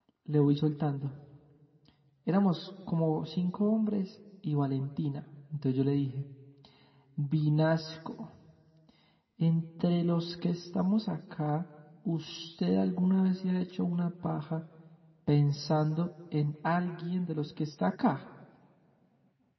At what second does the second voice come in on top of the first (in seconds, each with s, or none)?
none